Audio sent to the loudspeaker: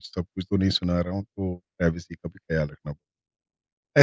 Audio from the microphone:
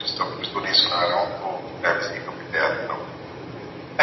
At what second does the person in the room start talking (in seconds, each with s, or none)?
none